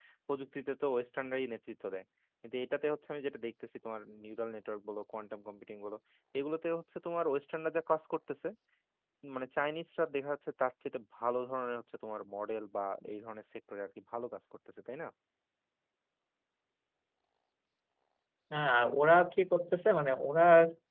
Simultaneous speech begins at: none

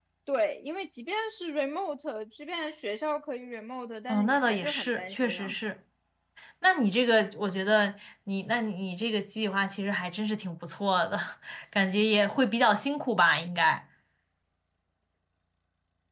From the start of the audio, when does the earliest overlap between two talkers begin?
4 s

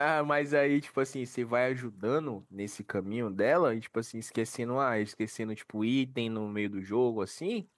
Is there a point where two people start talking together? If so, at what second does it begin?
none

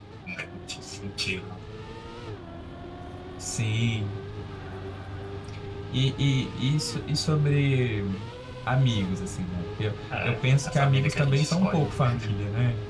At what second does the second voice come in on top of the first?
10 s

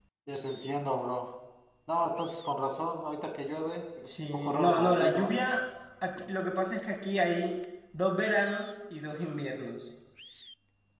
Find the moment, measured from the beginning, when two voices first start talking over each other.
4 s

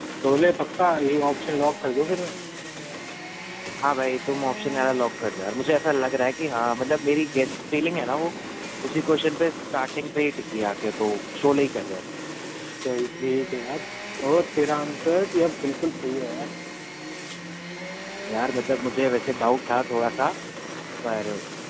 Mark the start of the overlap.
none

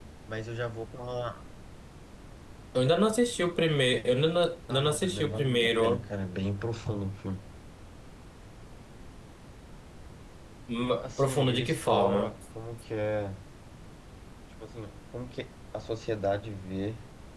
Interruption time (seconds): 5 s

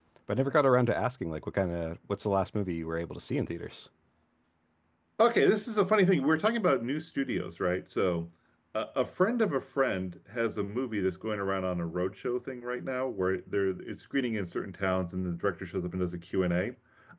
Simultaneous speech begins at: none

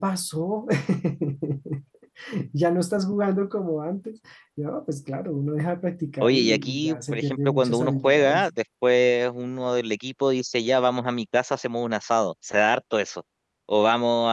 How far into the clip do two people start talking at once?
6 s

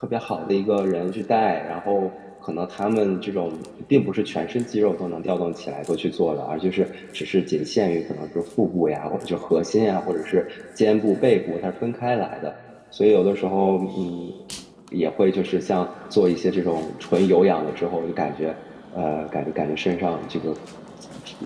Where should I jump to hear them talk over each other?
none

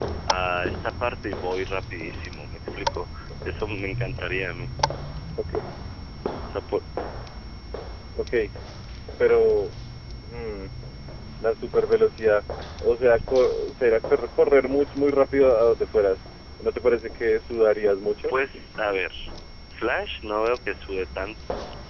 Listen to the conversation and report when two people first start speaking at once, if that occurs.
none

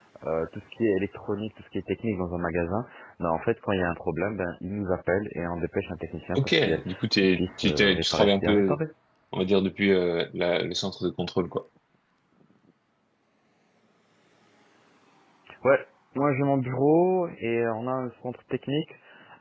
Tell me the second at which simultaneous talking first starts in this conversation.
6 s

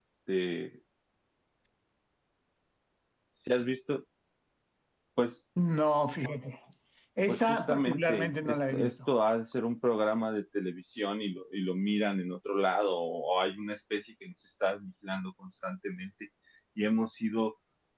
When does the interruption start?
7 s

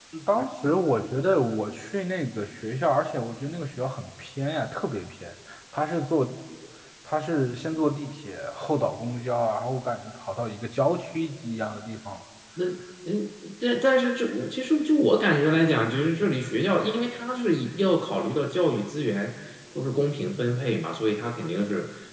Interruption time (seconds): none

